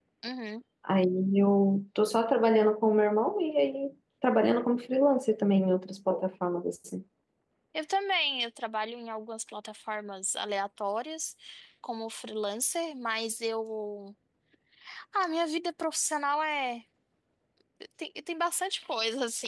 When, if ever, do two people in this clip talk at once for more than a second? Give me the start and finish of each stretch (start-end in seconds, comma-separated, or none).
none